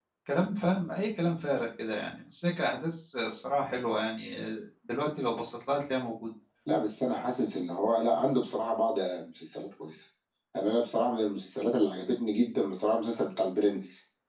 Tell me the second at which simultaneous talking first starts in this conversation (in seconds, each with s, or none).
none